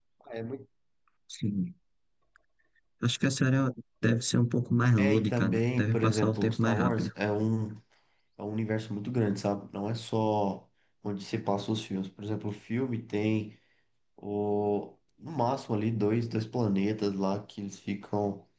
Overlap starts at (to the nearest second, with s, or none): 5 s